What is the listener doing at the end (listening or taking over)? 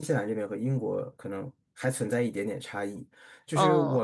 listening